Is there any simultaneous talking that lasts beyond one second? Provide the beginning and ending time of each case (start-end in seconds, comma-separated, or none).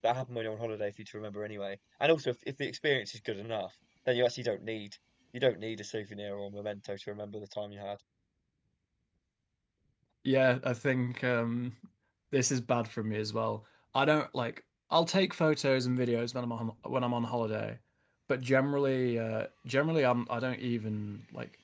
none